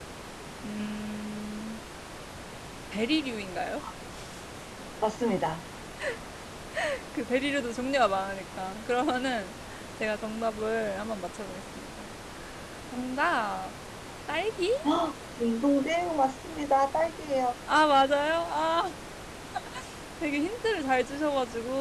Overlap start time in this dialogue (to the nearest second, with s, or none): none